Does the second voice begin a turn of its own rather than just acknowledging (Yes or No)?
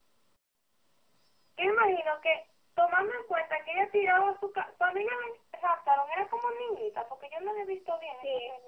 Yes